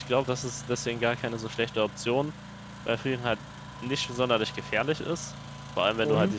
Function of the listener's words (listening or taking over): listening